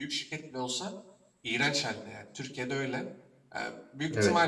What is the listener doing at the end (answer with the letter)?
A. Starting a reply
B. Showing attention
B